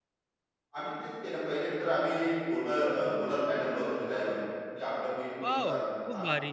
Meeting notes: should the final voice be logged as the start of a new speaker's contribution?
Yes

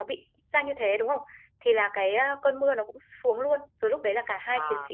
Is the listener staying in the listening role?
Yes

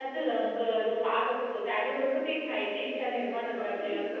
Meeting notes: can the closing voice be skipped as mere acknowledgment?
No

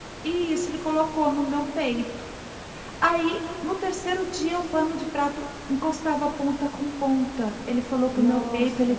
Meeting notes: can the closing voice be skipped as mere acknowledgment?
Yes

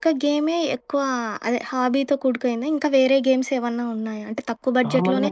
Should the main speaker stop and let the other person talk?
No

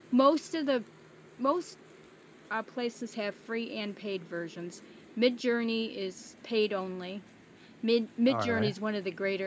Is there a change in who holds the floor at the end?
No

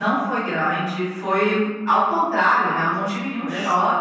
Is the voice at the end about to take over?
No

